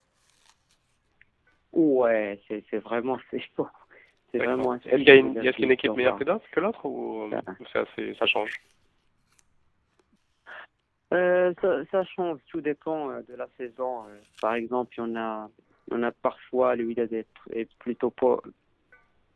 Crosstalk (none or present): present